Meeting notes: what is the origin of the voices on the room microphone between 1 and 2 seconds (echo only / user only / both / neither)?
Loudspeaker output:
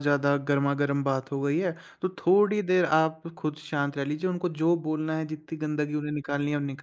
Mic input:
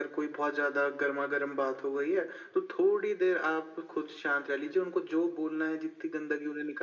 echo only